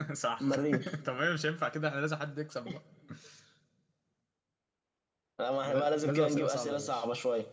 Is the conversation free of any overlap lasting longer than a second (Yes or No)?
No